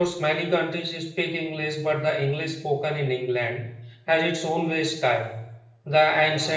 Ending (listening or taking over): listening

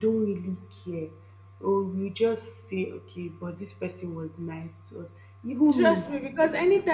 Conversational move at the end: taking over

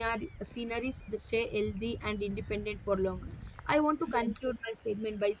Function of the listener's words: listening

